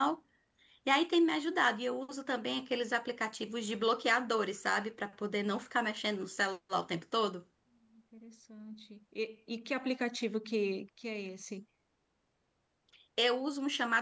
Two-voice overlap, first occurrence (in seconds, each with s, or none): none